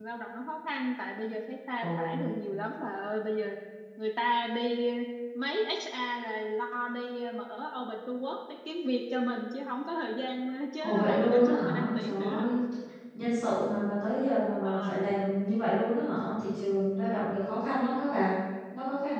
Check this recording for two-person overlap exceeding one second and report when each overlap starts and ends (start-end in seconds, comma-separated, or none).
10.8-12.5